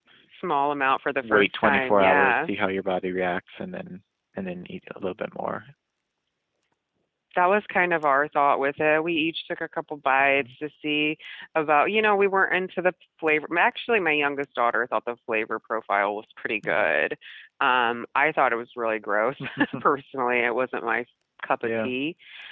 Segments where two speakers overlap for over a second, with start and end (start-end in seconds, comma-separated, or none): 1.2-2.5